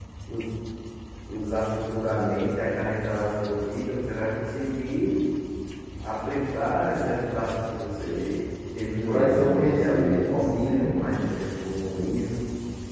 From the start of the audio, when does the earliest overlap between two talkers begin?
8.8 s

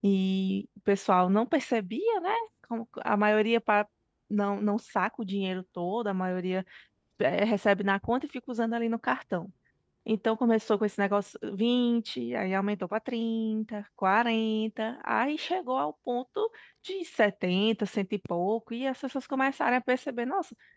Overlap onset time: none

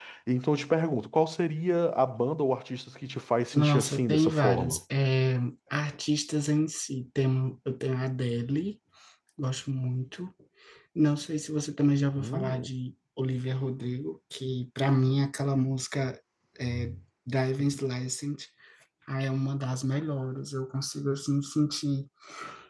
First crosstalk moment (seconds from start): 3.5 s

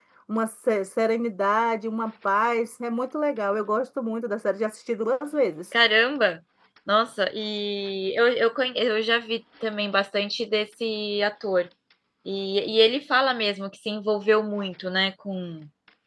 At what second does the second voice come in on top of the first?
none

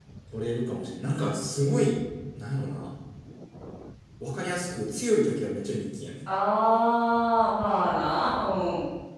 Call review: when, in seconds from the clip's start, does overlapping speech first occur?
none

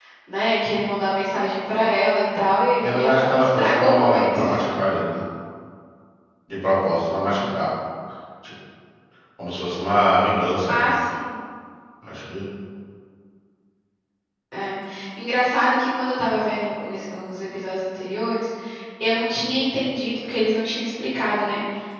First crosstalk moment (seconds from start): 2.8 s

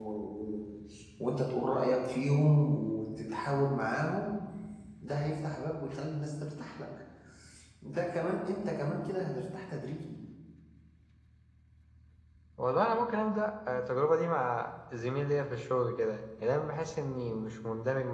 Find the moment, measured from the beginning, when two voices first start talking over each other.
none

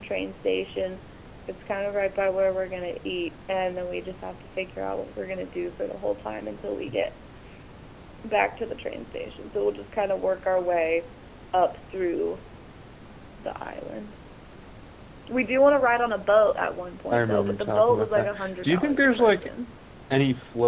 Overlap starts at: 17.1 s

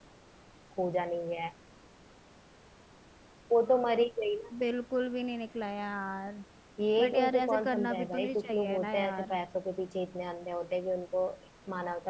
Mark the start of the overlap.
7.0 s

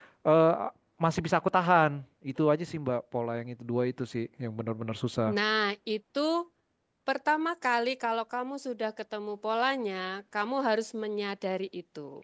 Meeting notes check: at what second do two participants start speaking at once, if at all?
none

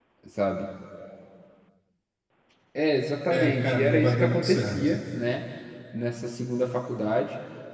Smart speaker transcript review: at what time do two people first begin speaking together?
3.3 s

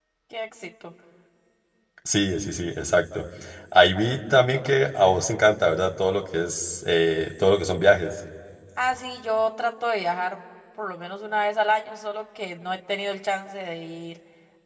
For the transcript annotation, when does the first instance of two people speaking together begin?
none

